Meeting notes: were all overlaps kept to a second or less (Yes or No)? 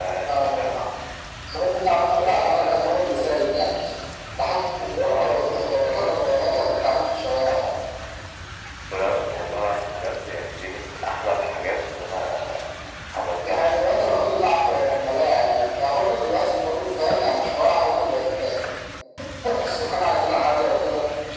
No